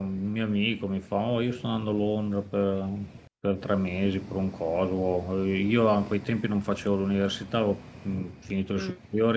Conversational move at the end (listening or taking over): listening